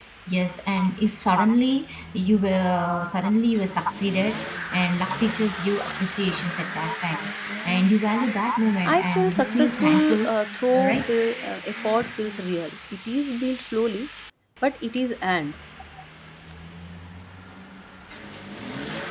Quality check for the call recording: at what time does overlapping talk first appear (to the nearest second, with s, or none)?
9 s